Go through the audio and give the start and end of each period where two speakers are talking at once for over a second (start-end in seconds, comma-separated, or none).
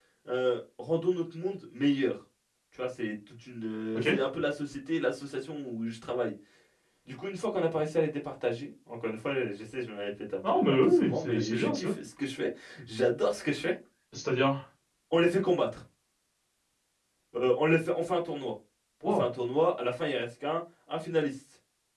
10.5-11.9